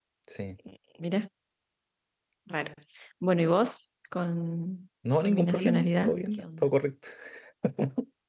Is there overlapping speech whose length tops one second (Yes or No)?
Yes